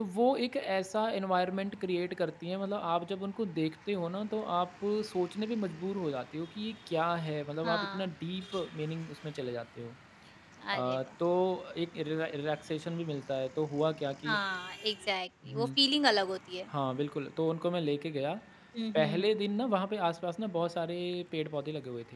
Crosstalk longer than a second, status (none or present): none